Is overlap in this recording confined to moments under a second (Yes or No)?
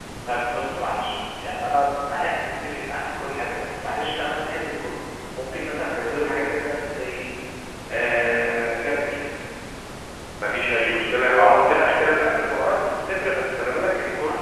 Yes